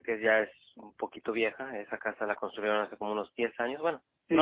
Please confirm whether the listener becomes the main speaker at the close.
Yes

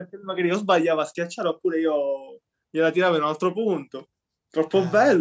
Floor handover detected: Yes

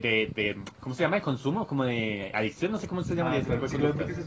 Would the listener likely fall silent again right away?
No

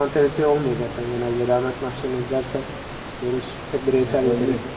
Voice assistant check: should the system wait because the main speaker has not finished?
No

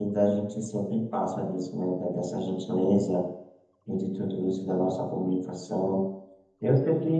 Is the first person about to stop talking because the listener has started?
No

